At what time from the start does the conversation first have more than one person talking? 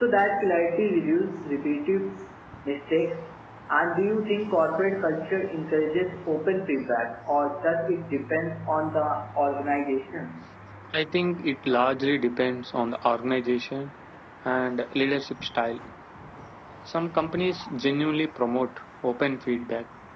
none

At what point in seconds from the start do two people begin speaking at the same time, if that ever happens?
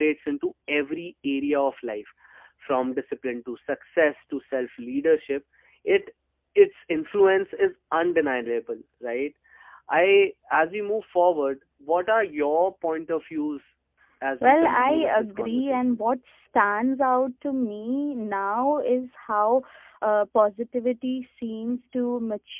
14.4 s

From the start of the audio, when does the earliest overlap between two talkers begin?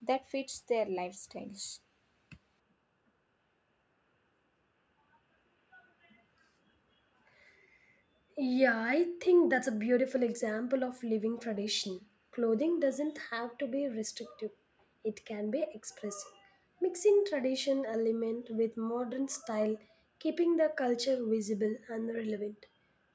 none

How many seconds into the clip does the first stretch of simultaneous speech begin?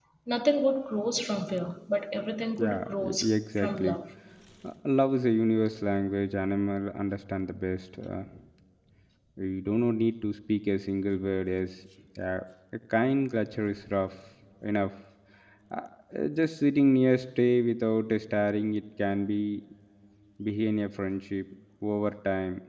2.6 s

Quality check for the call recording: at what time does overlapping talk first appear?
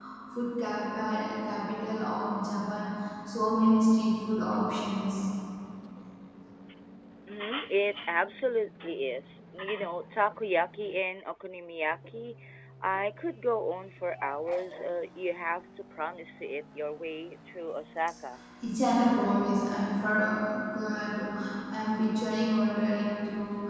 none

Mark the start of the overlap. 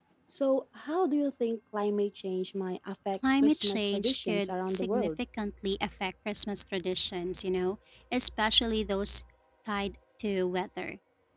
3.4 s

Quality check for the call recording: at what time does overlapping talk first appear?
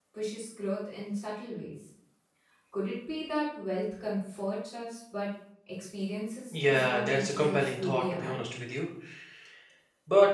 6.5 s

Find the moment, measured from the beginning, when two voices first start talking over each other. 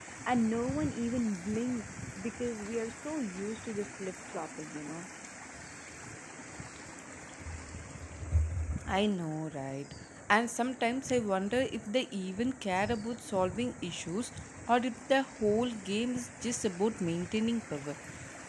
none

